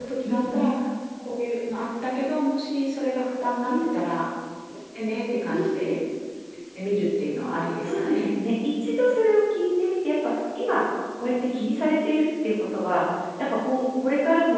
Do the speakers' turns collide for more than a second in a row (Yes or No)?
No